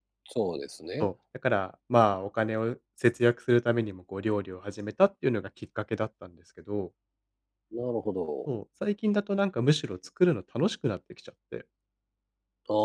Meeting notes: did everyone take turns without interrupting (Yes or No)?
Yes